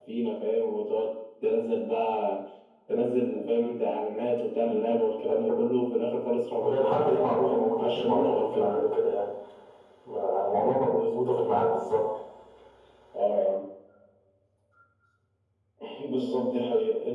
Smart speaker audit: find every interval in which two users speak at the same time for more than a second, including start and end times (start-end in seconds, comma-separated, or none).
6.6-8.8